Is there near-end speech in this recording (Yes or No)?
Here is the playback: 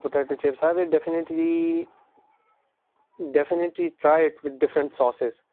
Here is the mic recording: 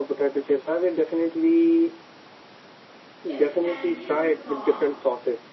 Yes